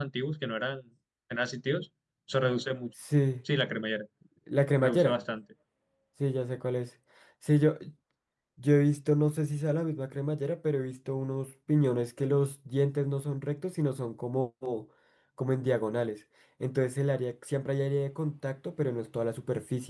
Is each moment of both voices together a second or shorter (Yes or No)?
Yes